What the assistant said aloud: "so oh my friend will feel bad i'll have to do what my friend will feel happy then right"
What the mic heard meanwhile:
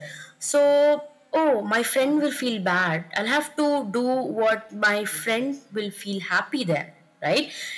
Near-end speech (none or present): none